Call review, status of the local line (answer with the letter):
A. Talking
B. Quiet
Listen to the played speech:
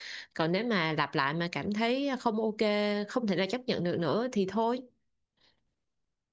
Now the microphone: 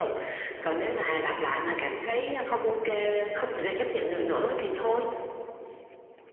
B